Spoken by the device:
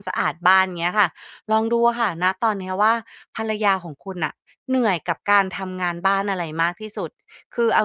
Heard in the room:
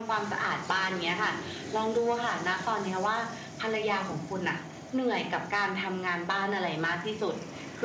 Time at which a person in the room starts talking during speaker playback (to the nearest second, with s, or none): none